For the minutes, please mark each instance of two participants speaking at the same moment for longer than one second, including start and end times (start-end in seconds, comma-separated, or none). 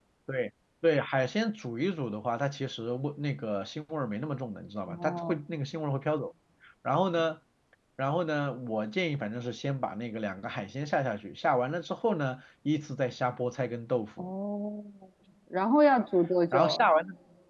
none